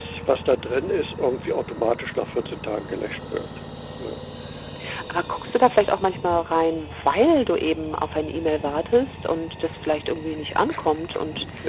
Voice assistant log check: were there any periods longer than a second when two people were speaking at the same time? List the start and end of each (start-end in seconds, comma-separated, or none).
none